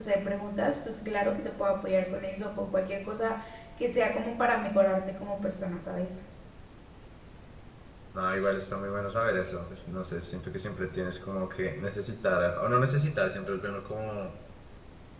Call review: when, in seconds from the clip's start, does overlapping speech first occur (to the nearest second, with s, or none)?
none